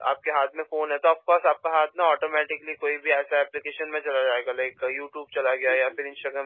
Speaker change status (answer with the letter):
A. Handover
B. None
B